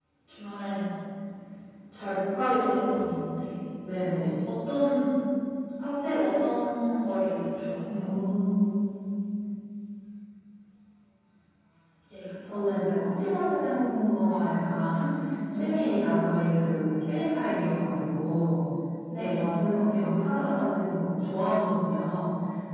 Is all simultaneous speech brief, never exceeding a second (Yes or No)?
Yes